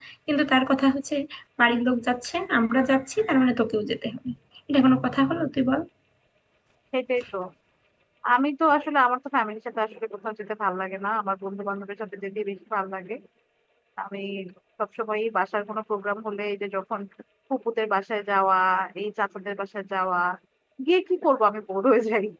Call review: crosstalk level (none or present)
none